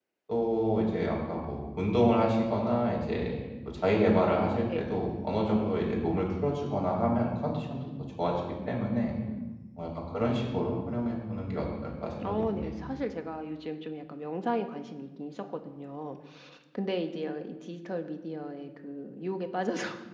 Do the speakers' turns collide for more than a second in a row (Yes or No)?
No